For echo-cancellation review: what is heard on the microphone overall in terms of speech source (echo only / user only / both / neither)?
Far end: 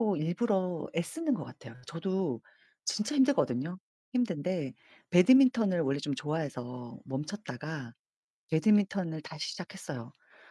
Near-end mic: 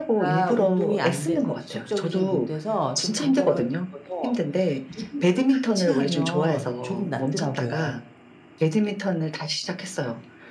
both